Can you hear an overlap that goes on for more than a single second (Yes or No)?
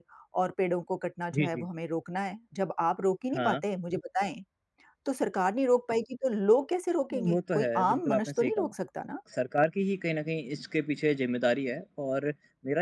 Yes